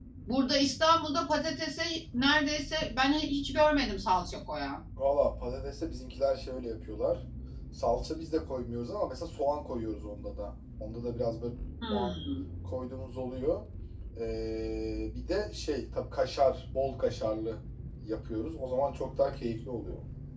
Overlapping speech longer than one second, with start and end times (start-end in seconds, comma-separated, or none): none